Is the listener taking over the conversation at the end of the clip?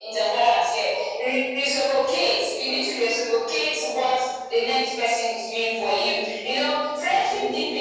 No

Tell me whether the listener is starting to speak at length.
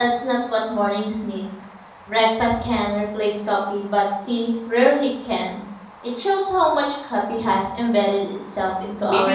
Yes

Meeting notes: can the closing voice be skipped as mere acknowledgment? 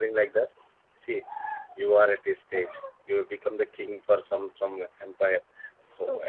Yes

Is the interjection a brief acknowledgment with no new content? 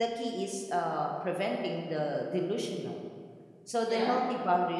Yes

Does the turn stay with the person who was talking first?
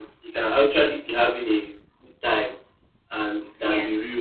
Yes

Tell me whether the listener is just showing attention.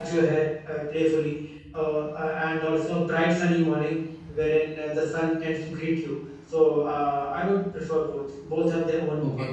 No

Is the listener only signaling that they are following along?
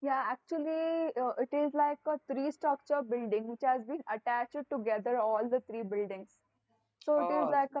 Yes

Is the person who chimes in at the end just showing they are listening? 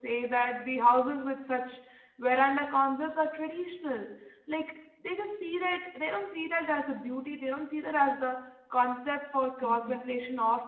Yes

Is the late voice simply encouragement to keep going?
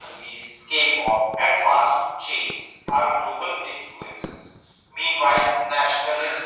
Yes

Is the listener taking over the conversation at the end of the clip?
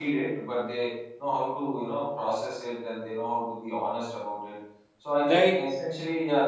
No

